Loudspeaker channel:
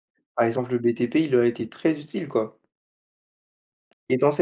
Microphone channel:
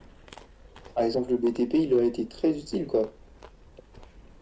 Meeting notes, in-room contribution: none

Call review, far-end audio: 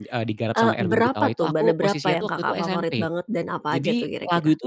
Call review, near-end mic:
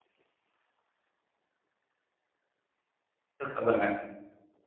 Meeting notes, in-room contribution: present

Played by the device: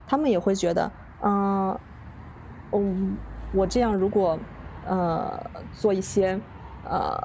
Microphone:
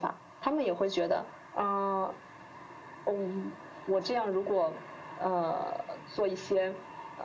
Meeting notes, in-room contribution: none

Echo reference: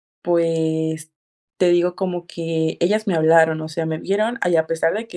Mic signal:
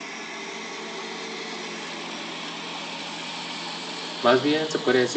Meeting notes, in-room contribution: present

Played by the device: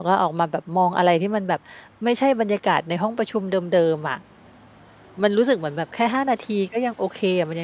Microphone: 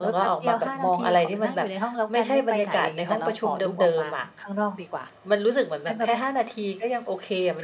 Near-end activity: present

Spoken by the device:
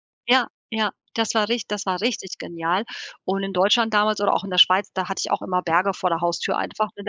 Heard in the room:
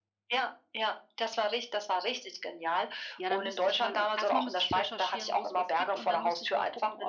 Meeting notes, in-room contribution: present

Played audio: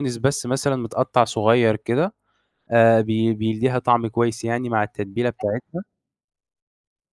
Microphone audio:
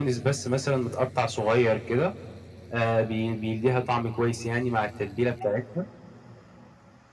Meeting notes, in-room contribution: none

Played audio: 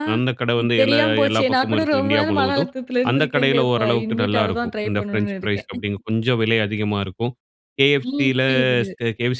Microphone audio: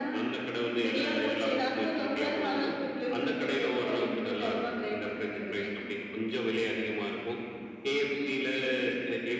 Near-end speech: none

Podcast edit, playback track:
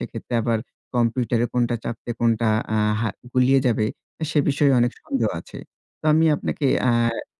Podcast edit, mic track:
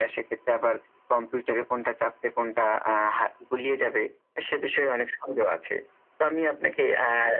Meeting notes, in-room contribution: none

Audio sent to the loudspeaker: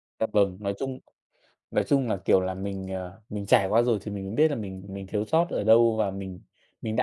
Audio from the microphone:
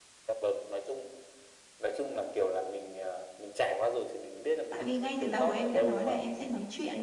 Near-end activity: present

